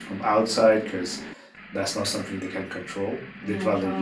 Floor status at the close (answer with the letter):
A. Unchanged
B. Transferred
A